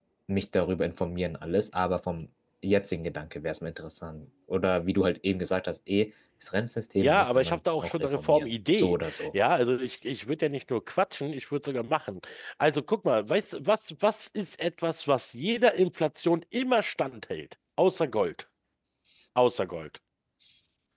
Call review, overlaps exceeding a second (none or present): present